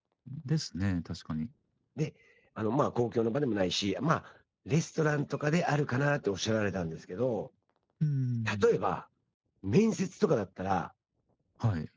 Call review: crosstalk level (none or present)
none